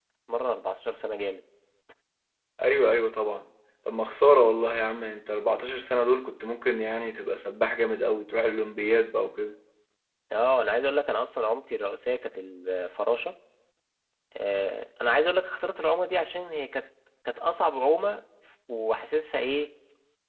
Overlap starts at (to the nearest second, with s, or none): none